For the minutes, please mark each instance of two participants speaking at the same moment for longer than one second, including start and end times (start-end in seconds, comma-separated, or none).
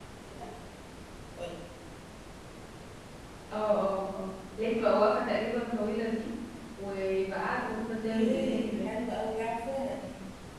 7.6-8.9